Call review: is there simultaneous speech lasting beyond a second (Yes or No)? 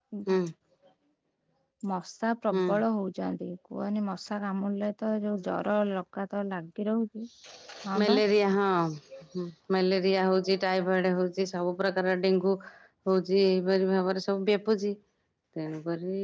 No